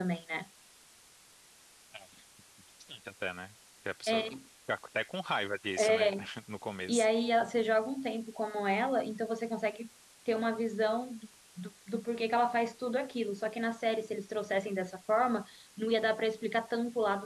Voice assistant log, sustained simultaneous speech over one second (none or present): none